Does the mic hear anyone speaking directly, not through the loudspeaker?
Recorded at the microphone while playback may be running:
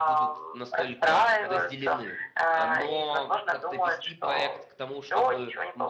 Yes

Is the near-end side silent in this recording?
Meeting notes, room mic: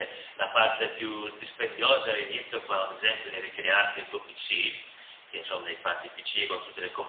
Yes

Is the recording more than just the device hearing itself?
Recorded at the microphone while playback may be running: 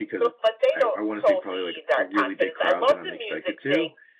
Yes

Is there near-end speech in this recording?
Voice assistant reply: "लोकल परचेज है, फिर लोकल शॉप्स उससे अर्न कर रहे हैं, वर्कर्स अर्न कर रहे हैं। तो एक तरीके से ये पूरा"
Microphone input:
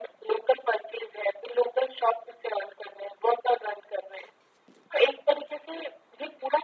No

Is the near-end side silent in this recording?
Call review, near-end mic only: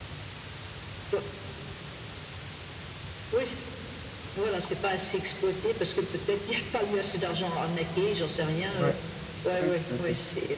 No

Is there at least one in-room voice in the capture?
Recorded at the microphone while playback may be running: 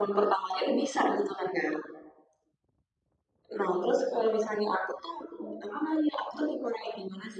No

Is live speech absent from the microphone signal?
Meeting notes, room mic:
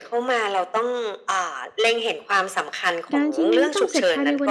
No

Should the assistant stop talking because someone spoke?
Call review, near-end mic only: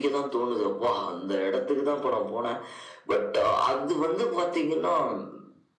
No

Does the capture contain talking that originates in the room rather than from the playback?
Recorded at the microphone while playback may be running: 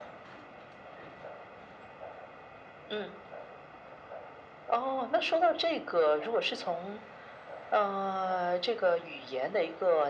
No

